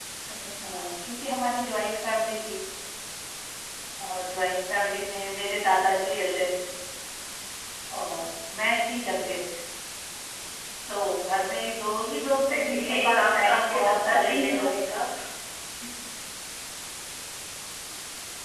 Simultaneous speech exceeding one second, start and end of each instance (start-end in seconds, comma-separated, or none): 12.5-14.7